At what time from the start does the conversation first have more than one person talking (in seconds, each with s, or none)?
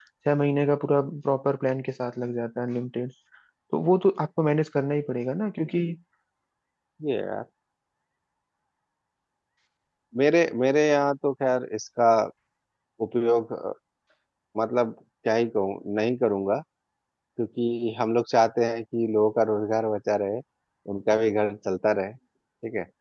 none